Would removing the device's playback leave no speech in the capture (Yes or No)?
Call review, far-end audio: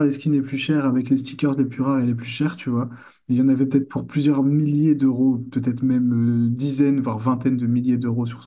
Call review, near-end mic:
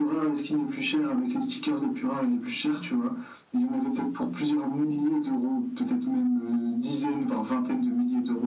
Yes